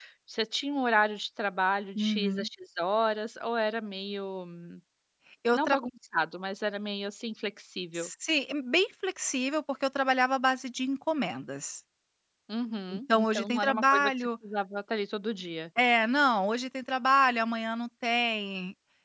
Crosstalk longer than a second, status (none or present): present